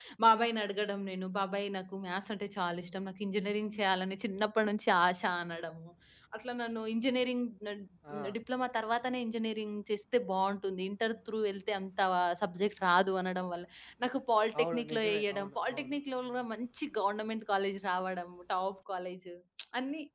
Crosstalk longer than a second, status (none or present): present